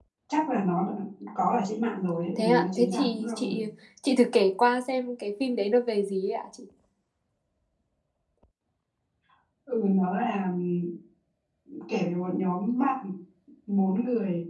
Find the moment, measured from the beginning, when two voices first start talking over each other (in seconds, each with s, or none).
2.4 s